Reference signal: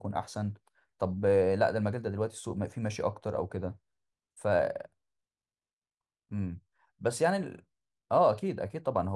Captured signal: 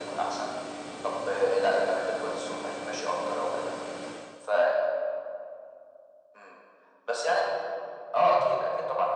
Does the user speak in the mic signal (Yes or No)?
No